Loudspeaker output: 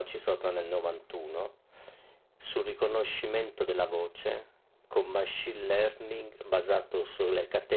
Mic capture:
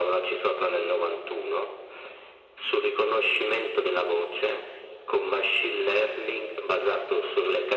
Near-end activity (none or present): none